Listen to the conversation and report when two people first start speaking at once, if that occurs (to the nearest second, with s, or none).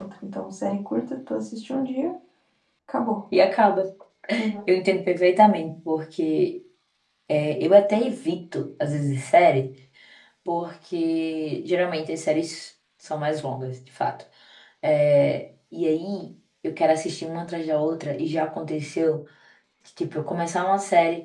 none